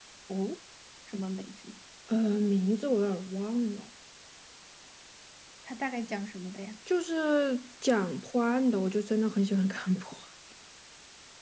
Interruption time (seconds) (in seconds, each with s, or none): none